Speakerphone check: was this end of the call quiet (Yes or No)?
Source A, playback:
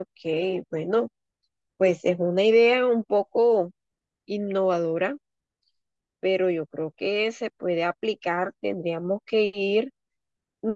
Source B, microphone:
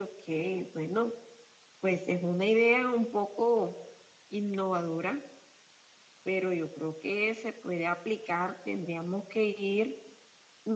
Yes